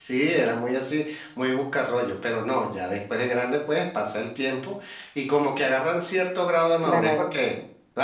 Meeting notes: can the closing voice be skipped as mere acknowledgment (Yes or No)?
Yes